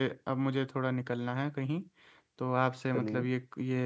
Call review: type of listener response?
listening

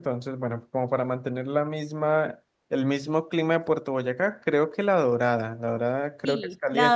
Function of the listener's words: taking over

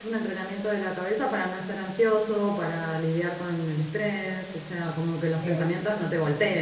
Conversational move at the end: listening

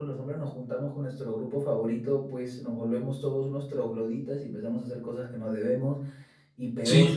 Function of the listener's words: listening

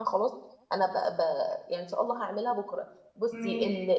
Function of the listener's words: listening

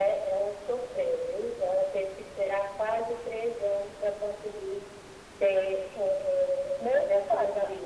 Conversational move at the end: taking over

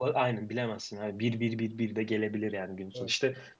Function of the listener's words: listening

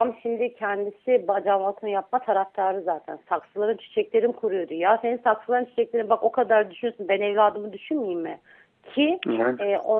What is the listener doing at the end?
listening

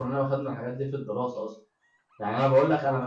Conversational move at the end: listening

